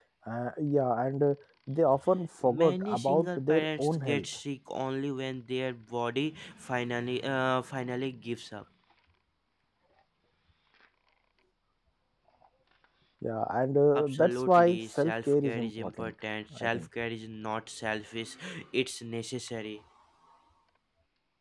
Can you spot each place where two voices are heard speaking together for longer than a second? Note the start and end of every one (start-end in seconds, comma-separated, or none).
2.4-4.3, 14.0-16.1